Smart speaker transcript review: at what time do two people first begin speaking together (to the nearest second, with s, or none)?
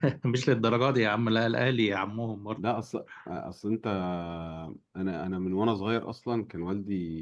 none